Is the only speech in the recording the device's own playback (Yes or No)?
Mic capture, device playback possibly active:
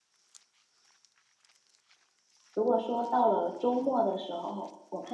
No